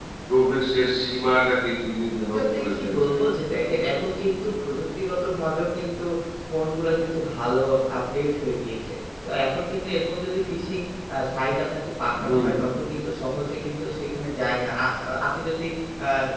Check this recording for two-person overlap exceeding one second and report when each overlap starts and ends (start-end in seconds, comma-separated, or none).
2.3-4.5